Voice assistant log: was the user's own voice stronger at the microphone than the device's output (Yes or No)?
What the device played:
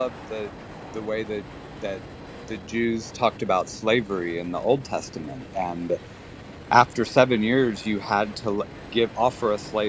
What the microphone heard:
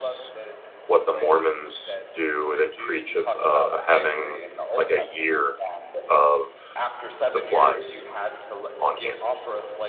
Yes